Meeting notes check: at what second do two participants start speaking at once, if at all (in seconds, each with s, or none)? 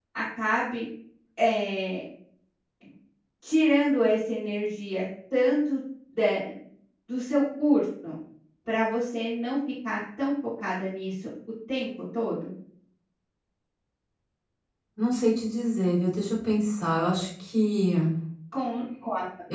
none